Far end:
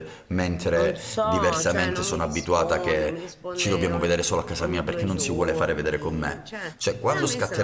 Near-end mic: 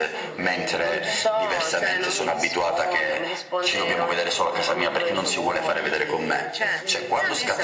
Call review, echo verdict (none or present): present